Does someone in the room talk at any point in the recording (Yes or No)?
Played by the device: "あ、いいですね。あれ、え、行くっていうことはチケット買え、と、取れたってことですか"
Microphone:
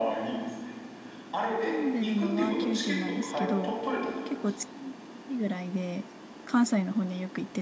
Yes